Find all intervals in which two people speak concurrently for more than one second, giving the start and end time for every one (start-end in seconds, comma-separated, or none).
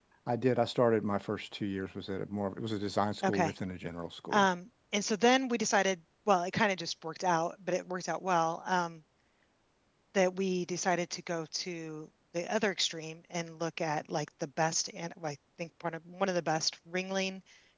none